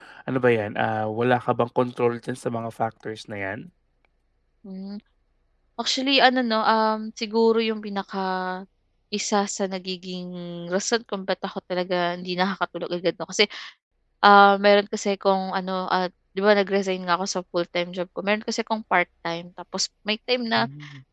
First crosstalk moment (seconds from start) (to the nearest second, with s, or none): none